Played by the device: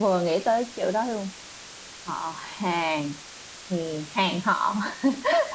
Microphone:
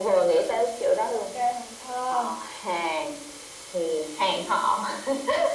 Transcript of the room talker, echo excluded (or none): ok hồn thơ